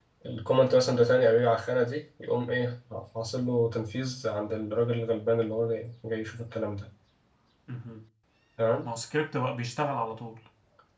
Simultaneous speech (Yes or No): No